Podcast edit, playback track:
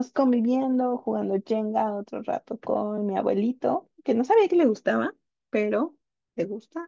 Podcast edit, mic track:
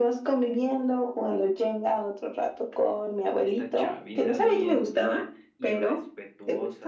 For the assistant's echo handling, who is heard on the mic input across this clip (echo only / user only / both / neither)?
both